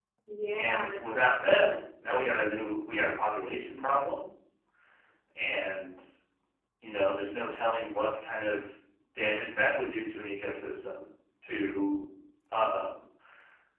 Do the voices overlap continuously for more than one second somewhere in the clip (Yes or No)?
Yes